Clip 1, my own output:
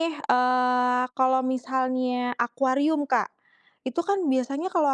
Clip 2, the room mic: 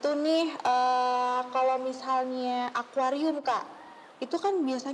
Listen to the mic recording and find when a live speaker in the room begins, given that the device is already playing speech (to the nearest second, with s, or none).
none